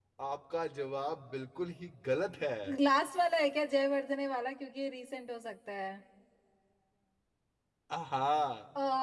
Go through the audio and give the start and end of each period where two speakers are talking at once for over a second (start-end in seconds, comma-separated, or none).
none